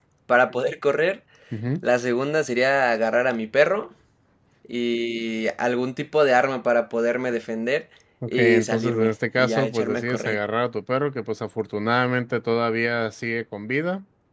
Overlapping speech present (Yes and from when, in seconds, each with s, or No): Yes, from 8.3 s